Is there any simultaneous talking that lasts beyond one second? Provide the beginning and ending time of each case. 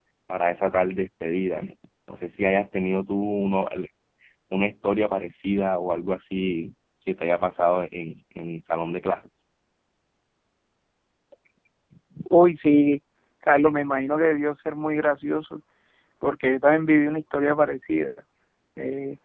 none

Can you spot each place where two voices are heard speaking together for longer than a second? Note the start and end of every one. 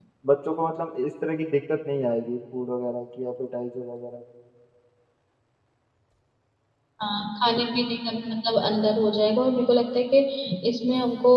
none

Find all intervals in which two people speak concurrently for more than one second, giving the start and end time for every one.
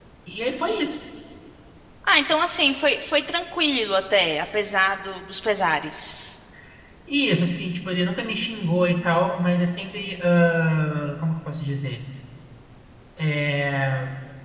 none

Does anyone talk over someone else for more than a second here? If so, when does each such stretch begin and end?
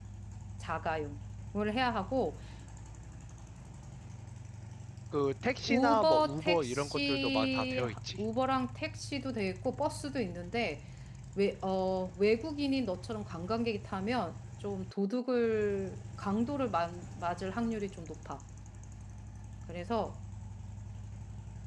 5.7-8.2

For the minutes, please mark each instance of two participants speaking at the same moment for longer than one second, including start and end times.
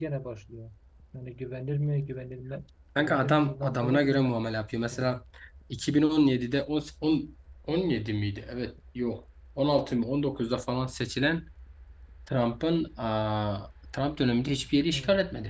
3.0-4.5

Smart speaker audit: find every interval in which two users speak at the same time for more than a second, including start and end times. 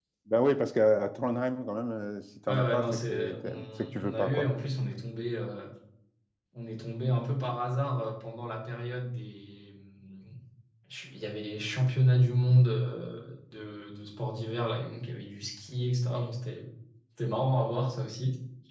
2.5-4.7

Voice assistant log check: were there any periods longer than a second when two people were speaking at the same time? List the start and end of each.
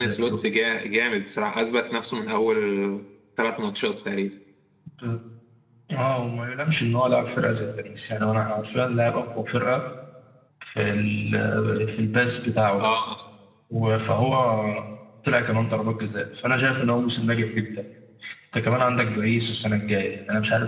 none

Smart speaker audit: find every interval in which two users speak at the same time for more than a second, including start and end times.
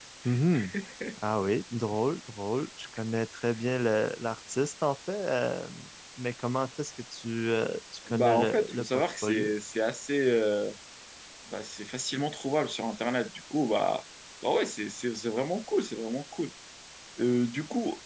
8.1-9.5

